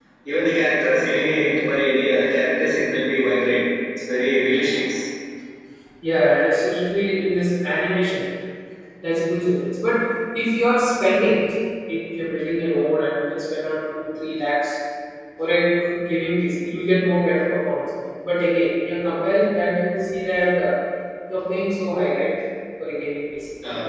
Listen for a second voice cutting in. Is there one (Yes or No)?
No